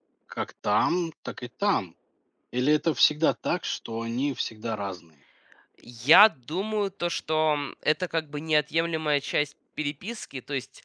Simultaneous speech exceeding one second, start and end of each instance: none

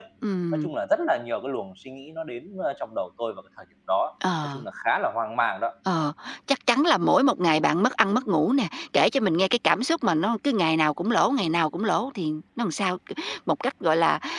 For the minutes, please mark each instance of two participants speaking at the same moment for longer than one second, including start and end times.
none

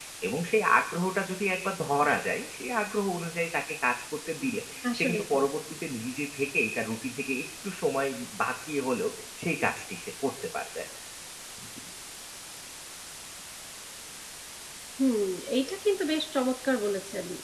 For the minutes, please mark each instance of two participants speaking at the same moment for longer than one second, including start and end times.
none

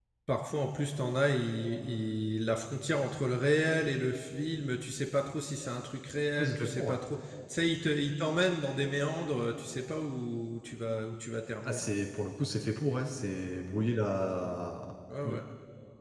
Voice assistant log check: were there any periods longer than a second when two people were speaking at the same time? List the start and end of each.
none

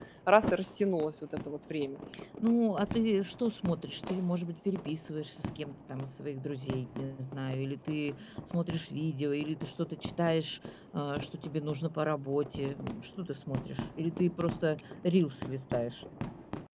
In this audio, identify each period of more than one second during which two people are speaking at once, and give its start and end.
none

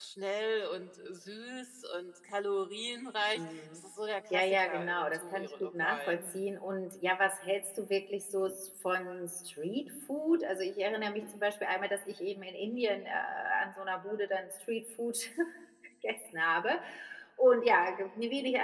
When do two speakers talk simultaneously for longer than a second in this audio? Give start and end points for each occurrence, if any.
4.3-6.3

